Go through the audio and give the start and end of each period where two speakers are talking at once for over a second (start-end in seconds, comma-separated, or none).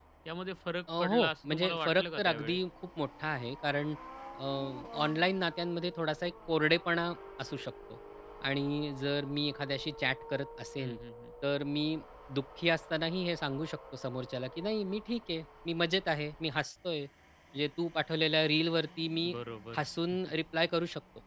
1.0-2.6